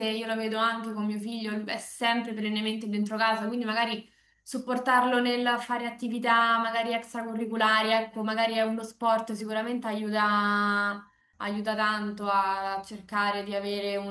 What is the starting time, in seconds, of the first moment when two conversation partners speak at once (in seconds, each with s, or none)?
none